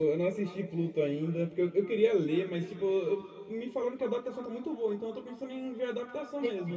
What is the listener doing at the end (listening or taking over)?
taking over